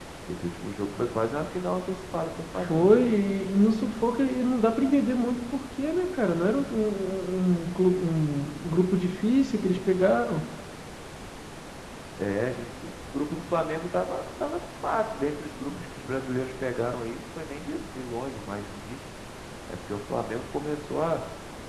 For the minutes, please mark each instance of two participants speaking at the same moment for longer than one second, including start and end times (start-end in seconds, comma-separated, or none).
none